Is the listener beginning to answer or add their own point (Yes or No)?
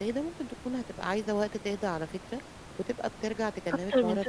Yes